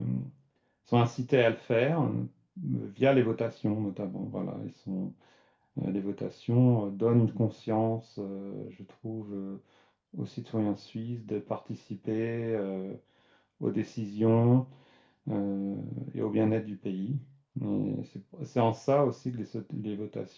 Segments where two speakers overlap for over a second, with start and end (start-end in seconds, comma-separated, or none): none